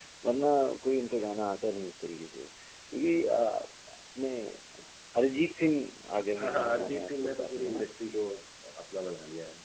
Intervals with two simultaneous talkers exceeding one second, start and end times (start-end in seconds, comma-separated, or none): 6.4-7.8